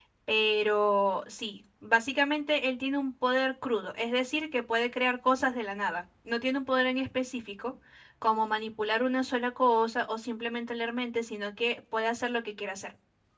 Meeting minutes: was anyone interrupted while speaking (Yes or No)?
No